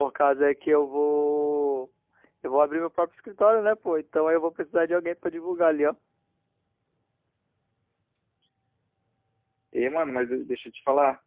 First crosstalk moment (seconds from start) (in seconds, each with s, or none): none